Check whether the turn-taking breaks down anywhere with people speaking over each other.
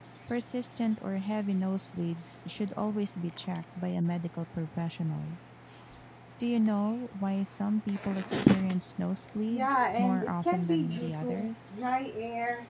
Yes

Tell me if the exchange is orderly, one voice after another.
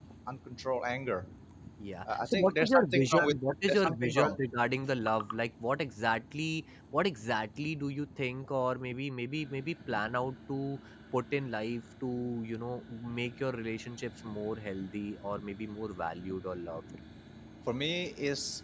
No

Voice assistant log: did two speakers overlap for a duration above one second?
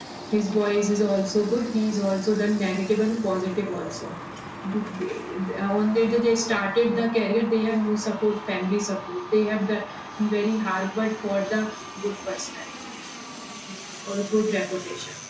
No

